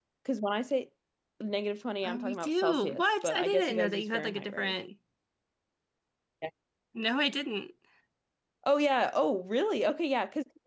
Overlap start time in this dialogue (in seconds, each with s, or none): 2.0 s